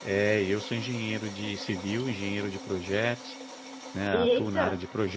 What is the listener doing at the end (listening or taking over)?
listening